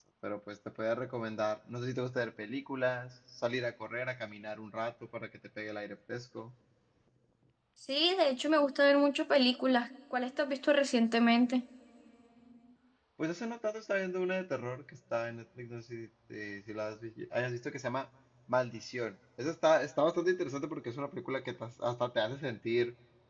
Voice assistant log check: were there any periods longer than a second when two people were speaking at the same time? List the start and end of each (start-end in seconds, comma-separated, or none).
none